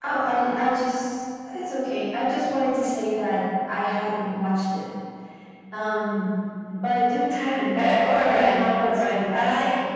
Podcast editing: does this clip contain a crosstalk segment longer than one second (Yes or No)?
Yes